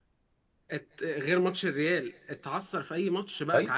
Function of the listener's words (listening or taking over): taking over